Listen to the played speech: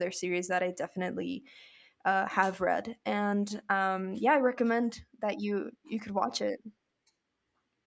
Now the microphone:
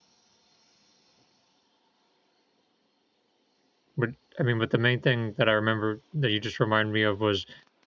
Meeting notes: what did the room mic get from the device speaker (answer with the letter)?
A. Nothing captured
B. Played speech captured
A